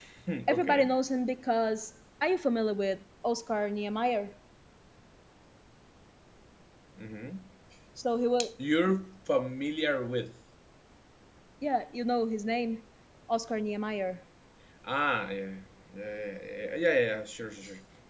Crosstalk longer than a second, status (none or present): none